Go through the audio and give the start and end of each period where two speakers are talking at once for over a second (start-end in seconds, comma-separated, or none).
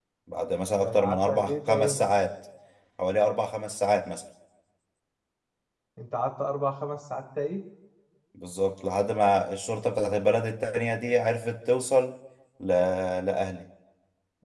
0.8-2.1